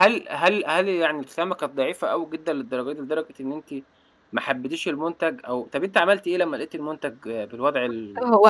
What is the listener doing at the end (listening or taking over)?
taking over